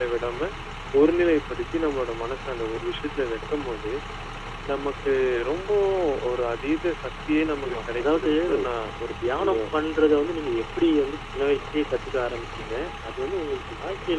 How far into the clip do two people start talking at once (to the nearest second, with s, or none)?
7 s